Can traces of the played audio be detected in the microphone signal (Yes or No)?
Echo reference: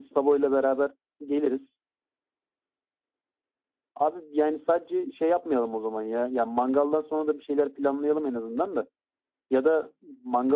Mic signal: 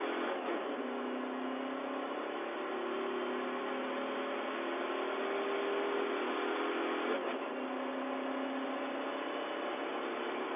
No